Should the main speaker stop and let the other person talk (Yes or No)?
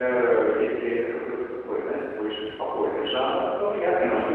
No